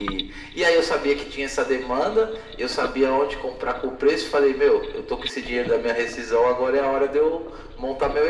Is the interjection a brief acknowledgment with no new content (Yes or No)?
Yes